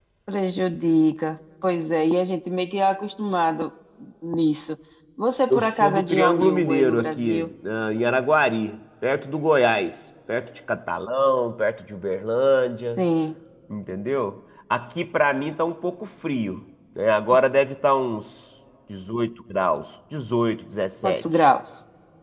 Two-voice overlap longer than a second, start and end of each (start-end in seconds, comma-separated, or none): 5.5-7.5